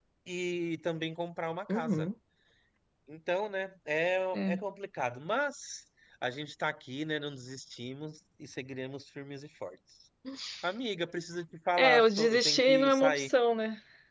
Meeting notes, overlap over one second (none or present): present